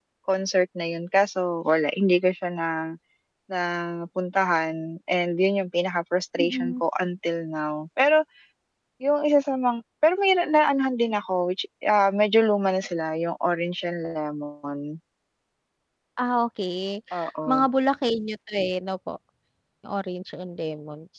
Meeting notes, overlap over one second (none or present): none